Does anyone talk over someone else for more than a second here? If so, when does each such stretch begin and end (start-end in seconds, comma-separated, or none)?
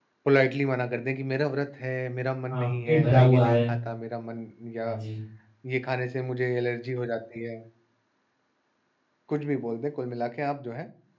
2.5-3.7